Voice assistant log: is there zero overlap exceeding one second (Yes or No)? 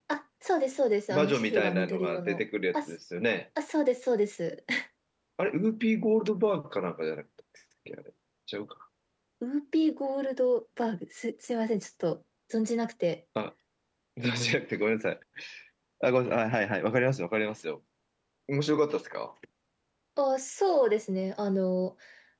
No